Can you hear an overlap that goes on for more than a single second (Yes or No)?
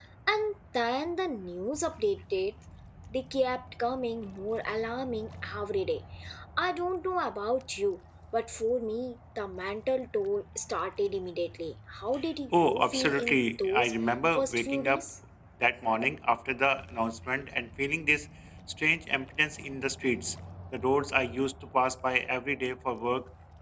Yes